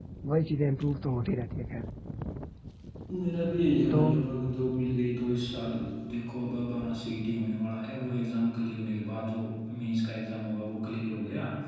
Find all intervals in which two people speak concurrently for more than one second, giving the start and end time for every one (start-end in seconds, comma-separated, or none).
none